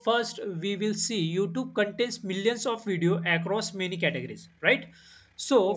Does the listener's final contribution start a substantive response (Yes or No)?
No